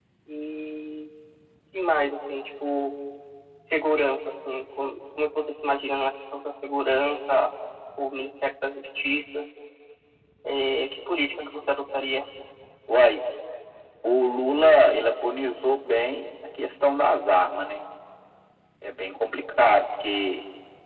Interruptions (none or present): none